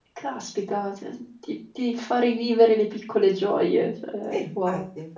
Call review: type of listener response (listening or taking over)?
taking over